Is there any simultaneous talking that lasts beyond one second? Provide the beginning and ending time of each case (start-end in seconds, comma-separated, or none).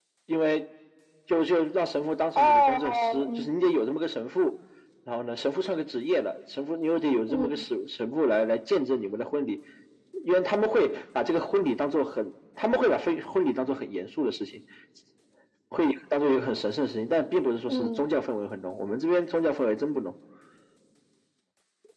2.4-3.7